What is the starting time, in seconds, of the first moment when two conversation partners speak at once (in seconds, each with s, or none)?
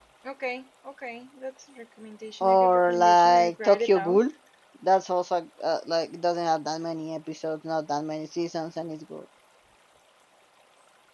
2.4 s